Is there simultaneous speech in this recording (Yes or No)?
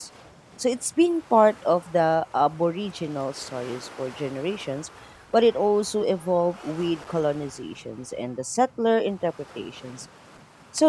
No